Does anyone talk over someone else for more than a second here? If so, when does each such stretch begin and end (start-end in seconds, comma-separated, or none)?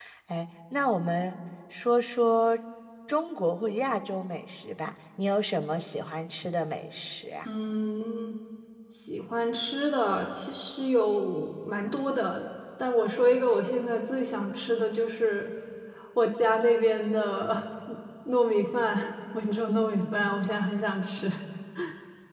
none